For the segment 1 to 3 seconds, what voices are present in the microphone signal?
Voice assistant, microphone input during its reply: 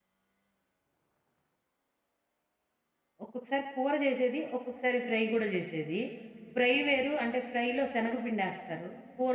neither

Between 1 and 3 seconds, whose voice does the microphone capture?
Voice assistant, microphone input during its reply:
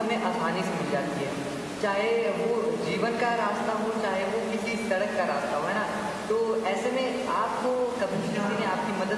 echo only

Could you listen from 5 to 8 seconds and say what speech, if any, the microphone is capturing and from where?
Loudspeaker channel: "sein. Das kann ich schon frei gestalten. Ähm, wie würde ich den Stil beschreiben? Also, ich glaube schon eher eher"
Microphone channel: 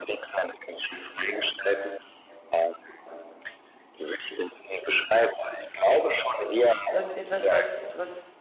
both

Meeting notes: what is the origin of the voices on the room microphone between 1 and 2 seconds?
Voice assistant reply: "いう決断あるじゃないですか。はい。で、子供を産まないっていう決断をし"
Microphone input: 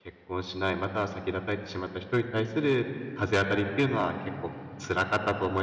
user only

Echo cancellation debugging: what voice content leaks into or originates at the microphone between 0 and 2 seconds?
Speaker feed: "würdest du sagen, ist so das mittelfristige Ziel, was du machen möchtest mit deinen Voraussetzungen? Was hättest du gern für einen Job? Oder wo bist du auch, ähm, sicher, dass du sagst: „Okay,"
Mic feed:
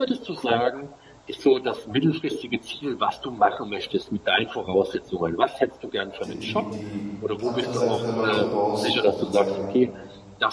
echo only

